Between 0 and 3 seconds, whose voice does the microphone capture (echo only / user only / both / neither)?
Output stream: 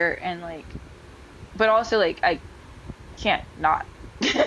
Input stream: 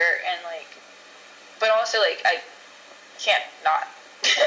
echo only